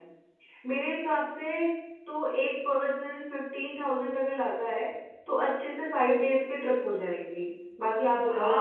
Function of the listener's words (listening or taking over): taking over